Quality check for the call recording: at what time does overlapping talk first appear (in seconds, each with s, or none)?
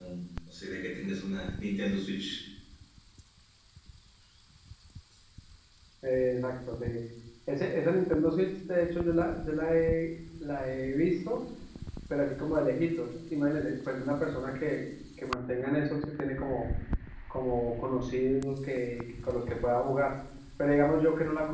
none